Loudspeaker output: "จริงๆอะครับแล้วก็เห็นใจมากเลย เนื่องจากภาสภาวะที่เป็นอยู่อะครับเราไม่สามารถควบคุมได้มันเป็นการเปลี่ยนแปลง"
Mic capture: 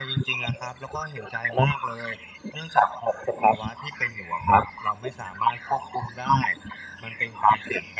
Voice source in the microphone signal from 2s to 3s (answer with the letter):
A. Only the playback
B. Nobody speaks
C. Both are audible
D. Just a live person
A